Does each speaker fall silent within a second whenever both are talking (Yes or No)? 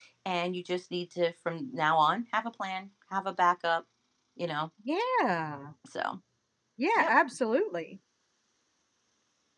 Yes